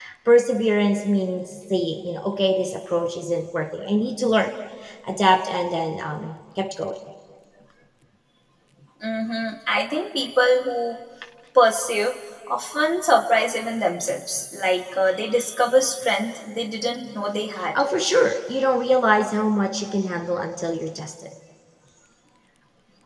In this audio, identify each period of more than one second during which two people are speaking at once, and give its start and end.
none

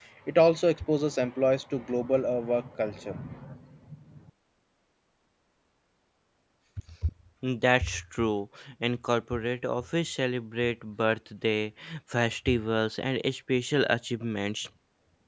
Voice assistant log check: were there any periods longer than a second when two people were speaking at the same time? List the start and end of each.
none

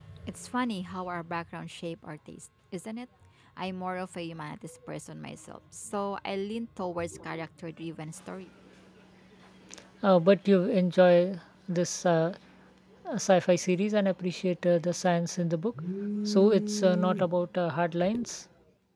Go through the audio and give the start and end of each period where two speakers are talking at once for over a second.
none

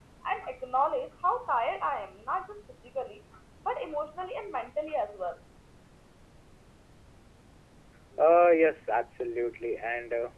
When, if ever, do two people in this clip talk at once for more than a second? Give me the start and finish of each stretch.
none

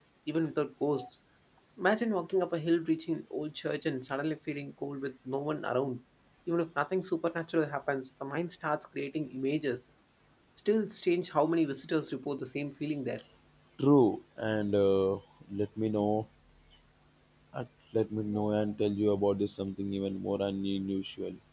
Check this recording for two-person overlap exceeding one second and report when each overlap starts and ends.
none

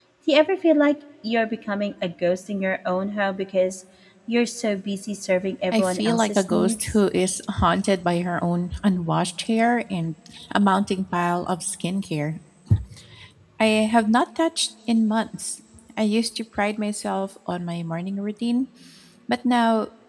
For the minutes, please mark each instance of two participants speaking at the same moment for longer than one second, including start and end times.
5.7-7.0

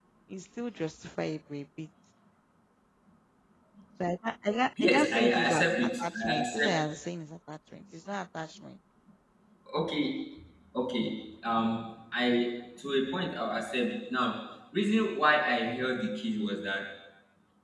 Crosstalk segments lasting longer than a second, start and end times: 4.8-6.7

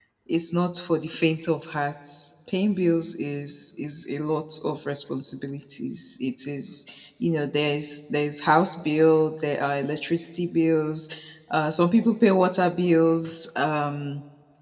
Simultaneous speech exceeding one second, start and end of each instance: none

